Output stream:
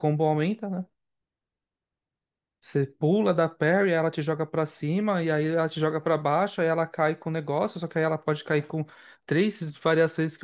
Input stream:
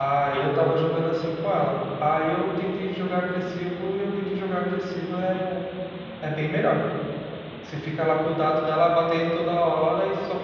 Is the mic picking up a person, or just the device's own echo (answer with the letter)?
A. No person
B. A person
B